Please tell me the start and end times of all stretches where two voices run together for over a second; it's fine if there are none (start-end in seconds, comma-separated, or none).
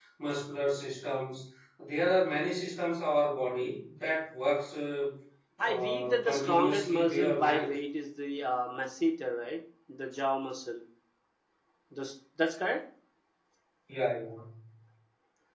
5.7-7.7